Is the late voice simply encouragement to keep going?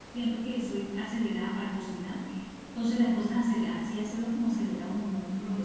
Yes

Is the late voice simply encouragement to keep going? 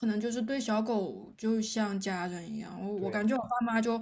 Yes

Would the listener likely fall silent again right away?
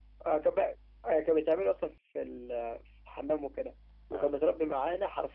Yes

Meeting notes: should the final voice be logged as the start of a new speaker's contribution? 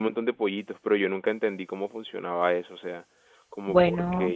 No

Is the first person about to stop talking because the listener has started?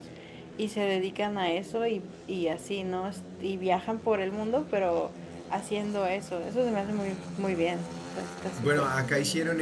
Yes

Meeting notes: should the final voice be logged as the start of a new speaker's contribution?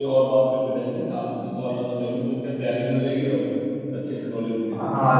Yes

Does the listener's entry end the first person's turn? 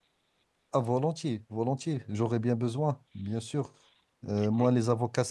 No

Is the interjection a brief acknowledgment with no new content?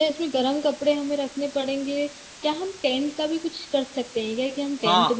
No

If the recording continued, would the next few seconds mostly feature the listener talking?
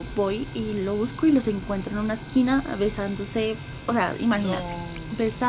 No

